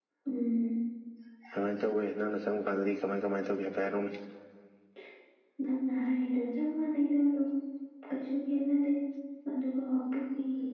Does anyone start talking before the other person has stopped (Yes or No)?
No